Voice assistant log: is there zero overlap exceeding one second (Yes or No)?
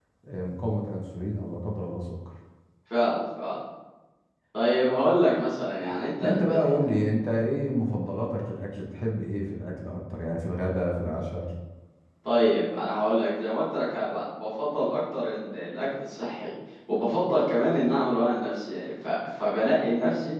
Yes